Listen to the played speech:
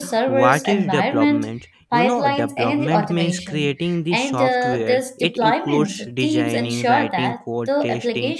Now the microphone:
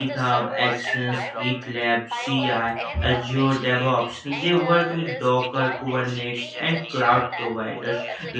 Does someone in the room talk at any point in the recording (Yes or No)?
Yes